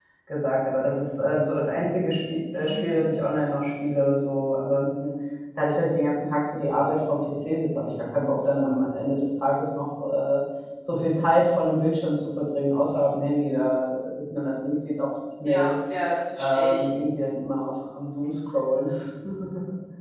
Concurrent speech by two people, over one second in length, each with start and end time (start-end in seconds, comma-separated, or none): none